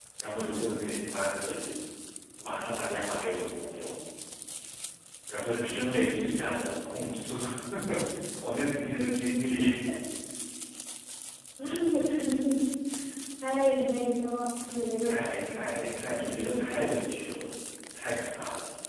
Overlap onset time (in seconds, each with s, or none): 14.6 s